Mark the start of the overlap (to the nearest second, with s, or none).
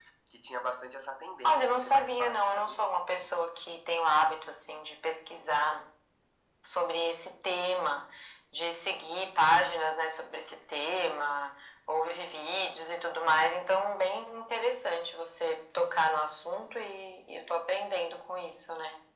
1 s